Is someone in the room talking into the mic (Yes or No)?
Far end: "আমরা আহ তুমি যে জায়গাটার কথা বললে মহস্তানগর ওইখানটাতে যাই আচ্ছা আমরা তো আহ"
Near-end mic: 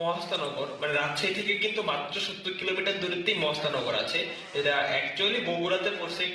Yes